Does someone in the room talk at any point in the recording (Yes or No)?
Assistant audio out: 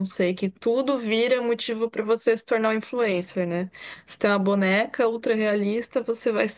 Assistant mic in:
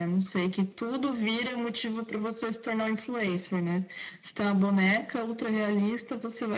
No